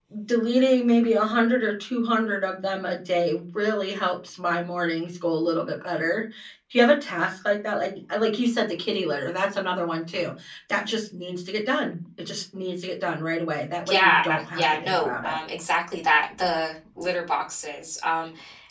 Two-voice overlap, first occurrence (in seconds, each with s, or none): 13.8 s